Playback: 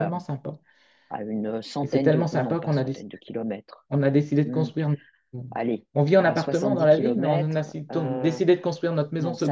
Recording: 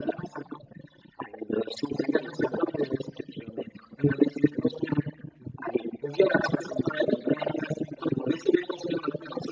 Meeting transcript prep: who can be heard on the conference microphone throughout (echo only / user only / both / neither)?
echo only